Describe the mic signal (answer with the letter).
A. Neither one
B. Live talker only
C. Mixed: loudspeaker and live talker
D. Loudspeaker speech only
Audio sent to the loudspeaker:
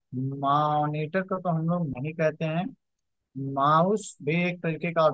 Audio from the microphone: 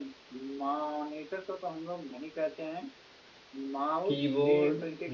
C